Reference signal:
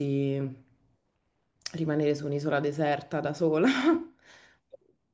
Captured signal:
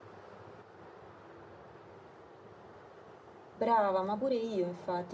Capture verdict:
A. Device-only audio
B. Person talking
B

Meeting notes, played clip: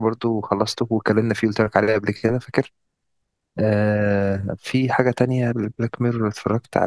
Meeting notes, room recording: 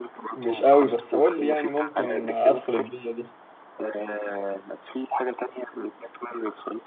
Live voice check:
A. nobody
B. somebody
B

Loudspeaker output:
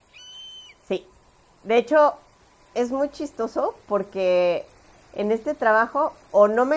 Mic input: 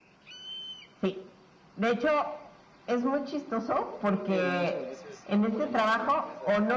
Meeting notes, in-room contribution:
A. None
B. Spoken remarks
B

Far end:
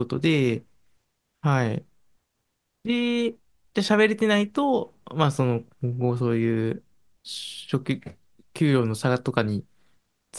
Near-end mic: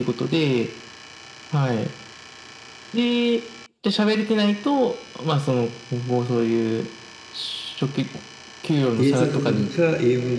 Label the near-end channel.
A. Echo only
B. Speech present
B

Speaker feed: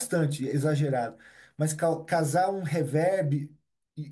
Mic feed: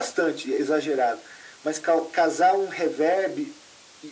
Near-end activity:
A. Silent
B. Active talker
A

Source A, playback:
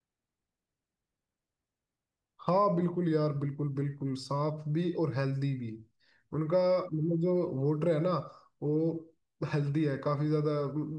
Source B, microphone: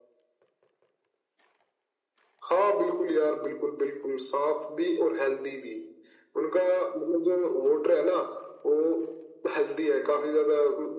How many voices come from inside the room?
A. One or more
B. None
B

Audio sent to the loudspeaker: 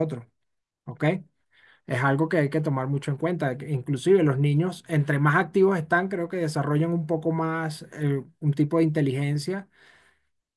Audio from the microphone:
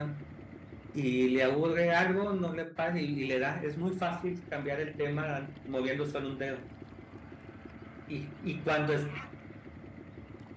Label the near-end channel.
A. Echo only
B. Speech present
B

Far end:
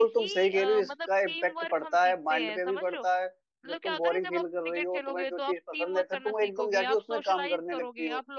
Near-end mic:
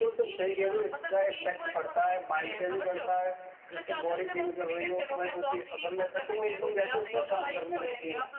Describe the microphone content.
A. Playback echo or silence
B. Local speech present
B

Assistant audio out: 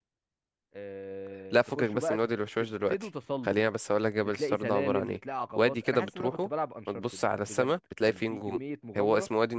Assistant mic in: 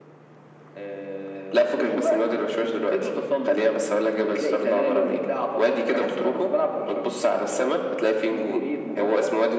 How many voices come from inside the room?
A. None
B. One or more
A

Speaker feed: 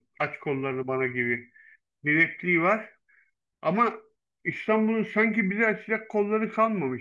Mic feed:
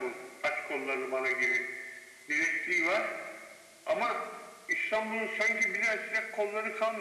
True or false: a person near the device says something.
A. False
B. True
A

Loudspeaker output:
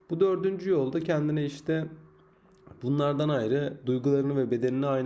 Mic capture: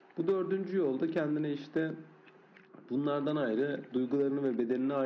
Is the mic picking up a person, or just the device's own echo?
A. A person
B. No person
B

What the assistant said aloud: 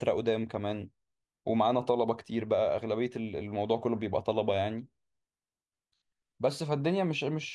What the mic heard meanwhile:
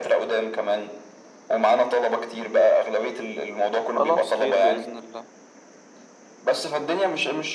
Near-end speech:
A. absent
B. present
B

